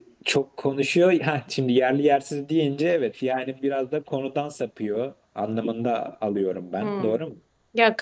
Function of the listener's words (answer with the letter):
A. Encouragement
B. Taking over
B